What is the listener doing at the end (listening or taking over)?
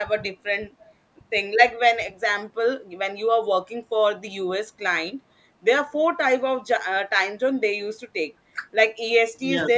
listening